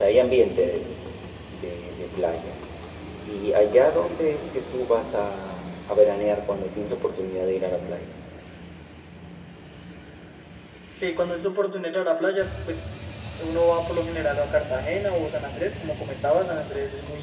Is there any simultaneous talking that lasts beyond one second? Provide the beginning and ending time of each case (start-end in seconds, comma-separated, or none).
none